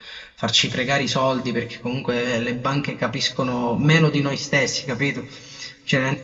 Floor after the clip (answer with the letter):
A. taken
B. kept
B